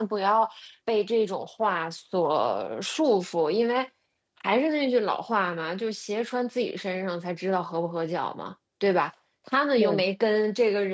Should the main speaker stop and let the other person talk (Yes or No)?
No